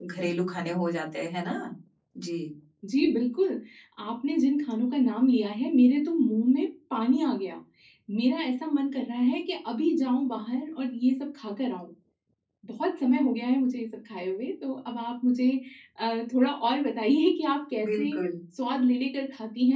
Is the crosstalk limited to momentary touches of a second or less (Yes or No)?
Yes